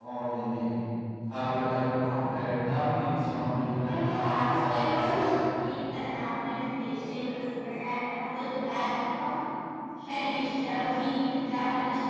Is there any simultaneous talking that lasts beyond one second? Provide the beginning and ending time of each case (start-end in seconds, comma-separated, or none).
3.9-5.4